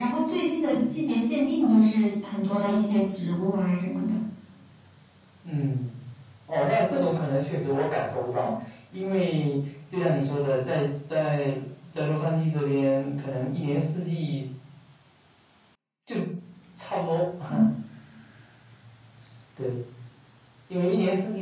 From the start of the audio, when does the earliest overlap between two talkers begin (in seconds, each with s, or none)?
none